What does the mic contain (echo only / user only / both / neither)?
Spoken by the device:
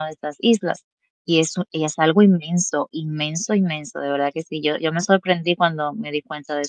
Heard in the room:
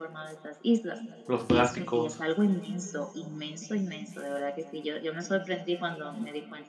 both